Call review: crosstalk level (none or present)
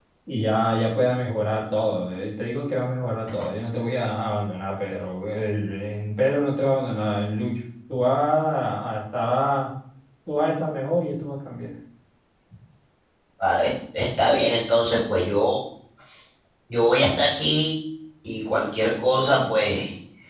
none